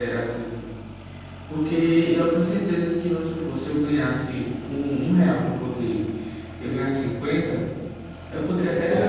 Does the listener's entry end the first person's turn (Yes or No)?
No